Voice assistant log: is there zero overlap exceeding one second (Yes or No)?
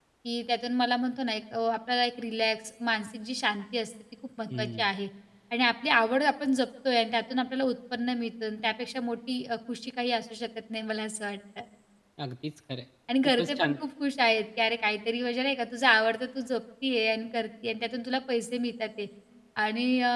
Yes